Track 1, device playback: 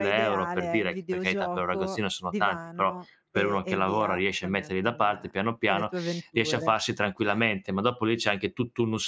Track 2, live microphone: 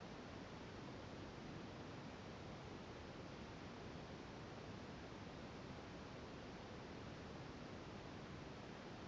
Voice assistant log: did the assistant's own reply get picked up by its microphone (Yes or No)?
No